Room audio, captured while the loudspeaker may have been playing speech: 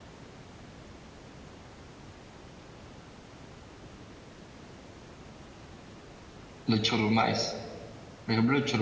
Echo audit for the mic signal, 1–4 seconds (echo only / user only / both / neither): neither